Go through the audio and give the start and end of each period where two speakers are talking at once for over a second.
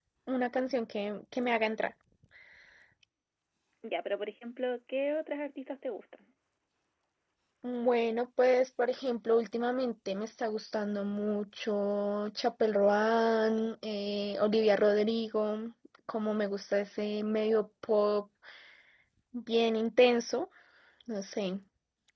none

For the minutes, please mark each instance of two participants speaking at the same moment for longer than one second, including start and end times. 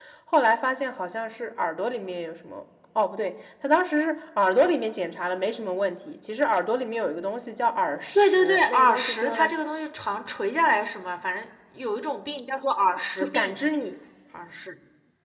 8.2-9.5

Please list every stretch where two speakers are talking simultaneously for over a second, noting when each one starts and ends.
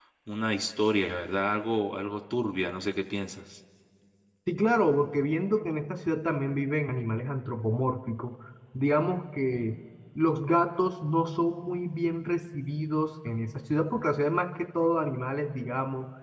none

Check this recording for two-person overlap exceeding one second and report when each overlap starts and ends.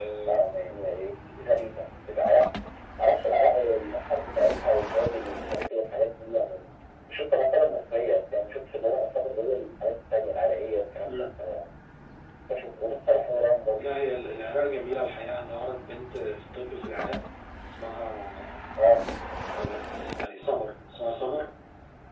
none

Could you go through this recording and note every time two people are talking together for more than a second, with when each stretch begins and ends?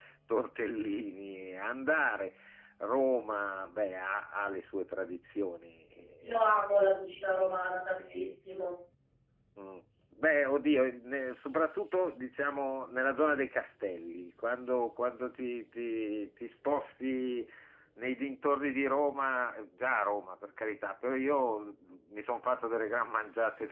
none

